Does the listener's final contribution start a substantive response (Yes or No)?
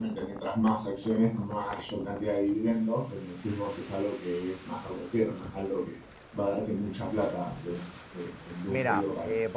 Yes